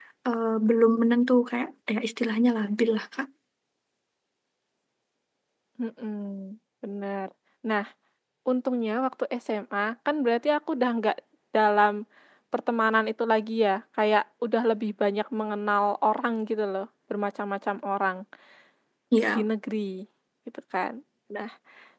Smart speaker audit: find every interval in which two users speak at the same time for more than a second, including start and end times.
none

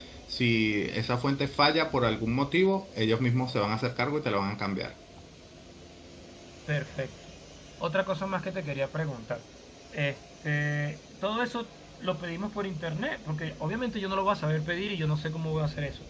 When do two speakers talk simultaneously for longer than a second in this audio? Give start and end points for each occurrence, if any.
none

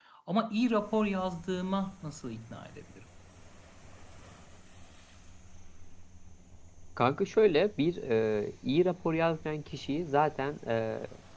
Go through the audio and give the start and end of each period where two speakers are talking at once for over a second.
none

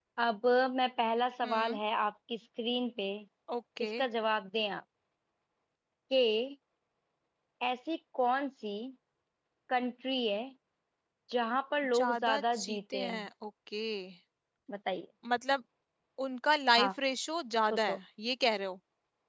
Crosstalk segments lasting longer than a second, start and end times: 12.0-13.3

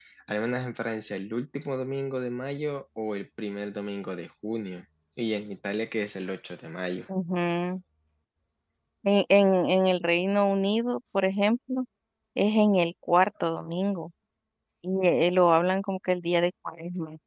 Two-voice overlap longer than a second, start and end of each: none

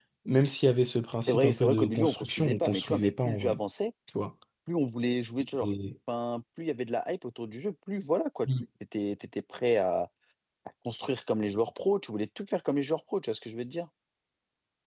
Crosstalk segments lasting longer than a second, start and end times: 1.3-3.6

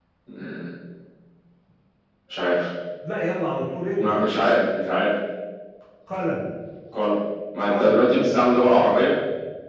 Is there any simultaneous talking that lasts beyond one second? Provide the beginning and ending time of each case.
7.7-8.9

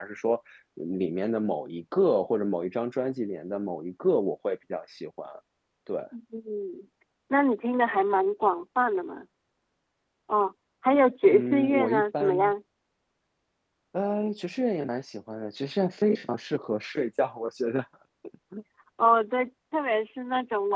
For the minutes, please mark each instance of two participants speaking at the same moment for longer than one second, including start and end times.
11.3-12.5

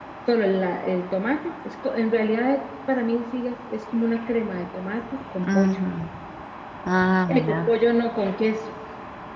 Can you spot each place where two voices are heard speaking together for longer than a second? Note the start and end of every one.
none

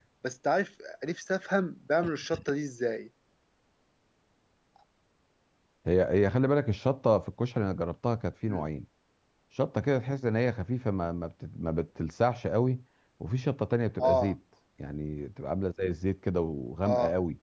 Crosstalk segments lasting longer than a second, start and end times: none

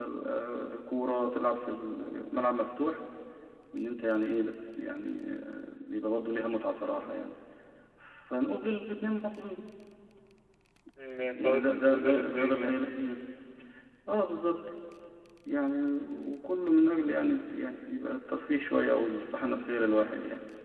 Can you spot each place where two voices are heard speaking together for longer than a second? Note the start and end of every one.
11.4-12.8

